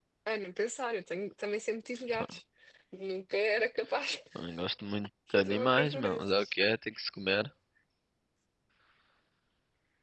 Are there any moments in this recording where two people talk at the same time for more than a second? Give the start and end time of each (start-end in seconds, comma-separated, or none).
5.3-6.5